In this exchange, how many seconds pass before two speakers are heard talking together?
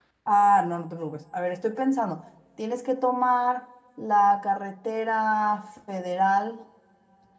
none

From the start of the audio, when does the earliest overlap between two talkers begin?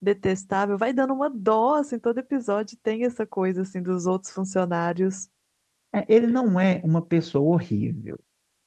none

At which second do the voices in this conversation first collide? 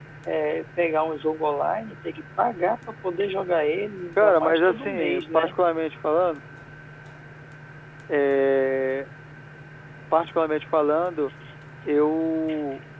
4 s

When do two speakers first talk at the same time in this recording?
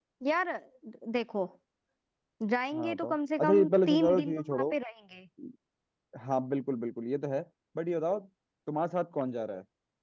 3 s

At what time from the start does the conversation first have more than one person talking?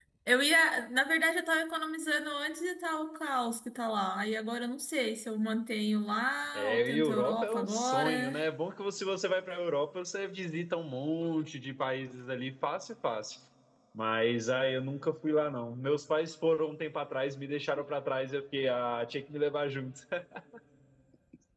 7 s

